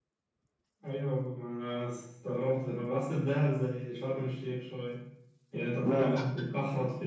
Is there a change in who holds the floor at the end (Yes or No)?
No